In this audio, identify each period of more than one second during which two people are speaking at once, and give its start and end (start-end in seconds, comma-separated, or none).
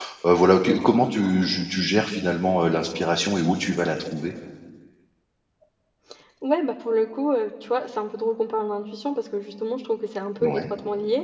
none